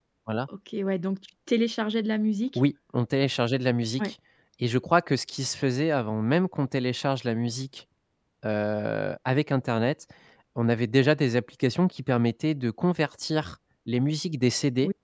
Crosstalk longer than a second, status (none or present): none